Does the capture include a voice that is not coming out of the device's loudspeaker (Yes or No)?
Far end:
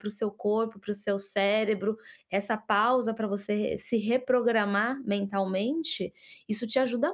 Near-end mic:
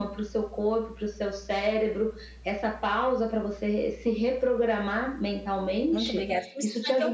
Yes